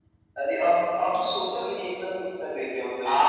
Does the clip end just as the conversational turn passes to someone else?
Yes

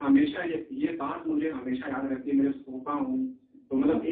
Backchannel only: Yes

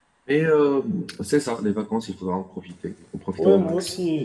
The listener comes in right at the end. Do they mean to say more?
Yes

